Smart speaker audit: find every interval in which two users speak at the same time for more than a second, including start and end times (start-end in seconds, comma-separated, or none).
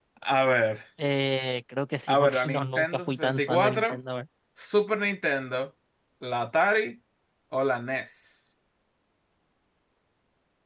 2.1-4.0